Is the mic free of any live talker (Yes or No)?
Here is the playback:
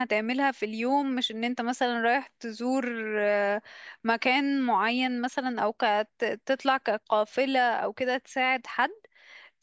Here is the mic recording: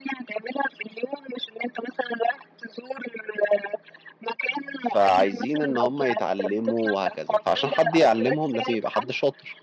No